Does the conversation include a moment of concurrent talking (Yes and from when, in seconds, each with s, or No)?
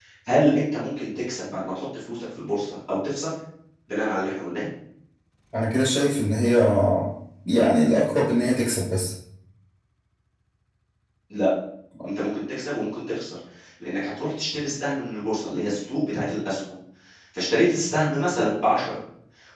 No